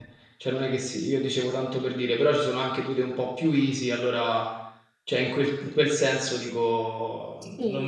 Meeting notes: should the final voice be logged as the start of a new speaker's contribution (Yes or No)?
No